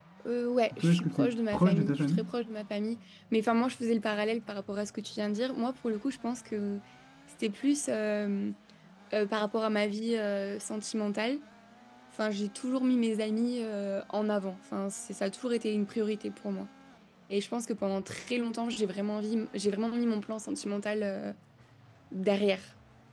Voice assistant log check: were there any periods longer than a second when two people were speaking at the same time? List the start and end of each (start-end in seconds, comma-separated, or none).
0.8-2.3